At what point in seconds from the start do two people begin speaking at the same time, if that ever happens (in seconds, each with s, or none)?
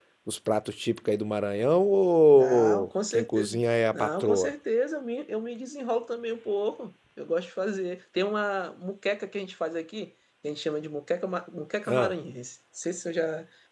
2.3 s